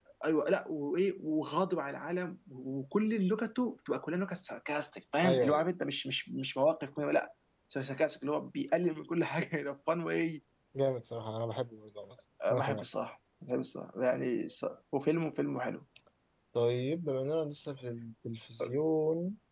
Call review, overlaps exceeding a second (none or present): none